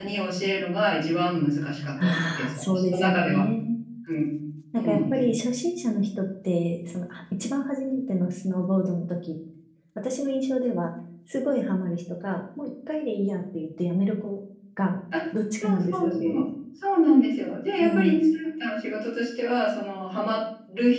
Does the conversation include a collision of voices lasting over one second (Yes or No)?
Yes